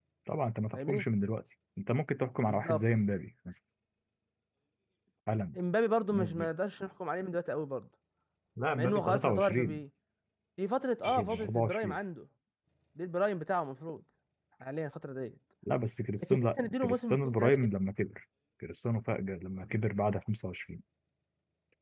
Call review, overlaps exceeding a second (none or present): present